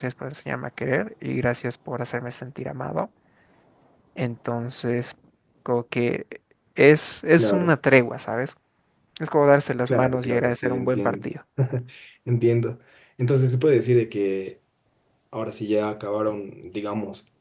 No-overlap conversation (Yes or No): No